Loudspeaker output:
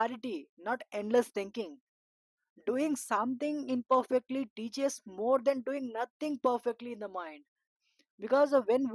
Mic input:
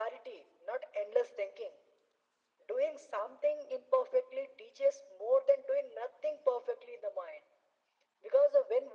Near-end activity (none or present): none